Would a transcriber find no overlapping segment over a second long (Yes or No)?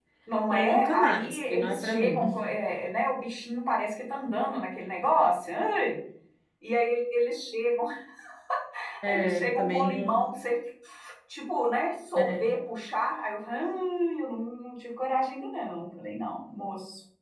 No